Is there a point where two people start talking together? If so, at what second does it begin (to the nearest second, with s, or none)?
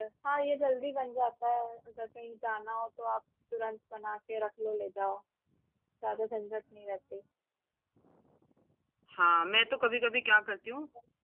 none